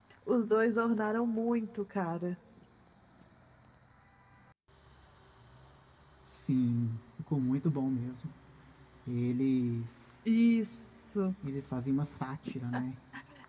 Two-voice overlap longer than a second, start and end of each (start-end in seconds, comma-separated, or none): none